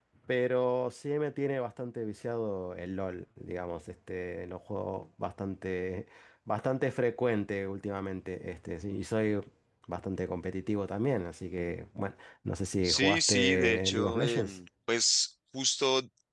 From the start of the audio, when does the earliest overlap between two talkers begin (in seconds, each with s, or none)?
12.8 s